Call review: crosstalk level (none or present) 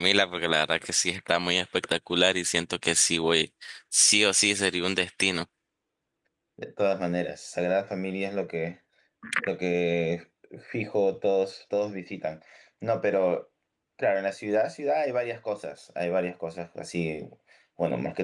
none